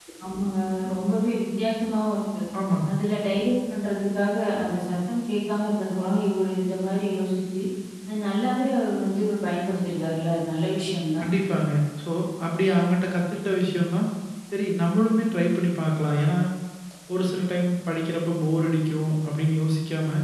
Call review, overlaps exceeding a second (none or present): none